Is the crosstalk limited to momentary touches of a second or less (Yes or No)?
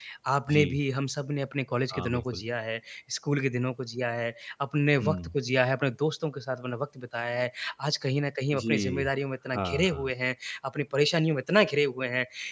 Yes